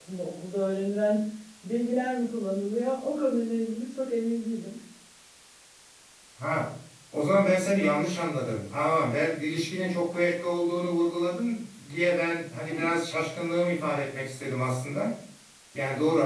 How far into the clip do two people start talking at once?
none

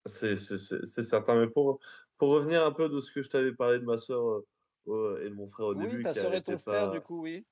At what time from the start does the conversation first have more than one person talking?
5.7 s

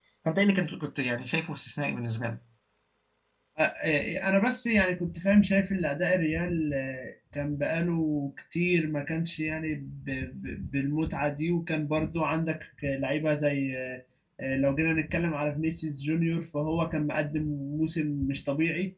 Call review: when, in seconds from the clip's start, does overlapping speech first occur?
none

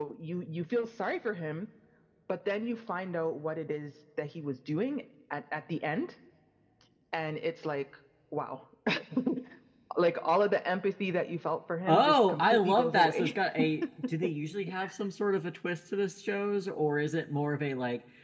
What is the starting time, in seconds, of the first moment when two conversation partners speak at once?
11.9 s

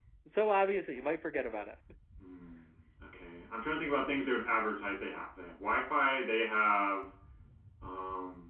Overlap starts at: none

